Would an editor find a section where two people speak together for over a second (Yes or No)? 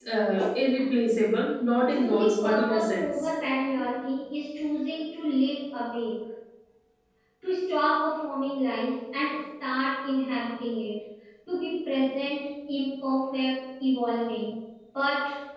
Yes